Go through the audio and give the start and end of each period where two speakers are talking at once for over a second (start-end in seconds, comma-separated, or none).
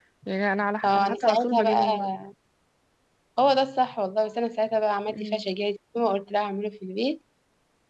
0.8-2.1